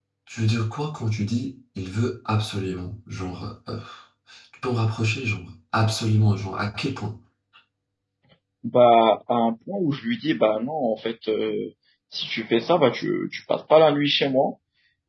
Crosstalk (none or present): none